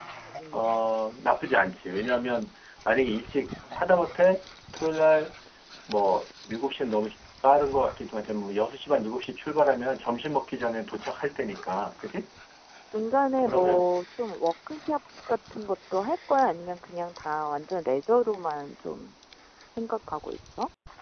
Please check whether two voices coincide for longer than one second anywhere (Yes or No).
No